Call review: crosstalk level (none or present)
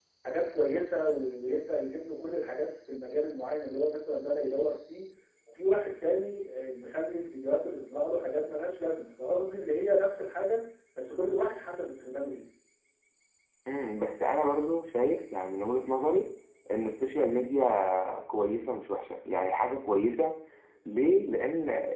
none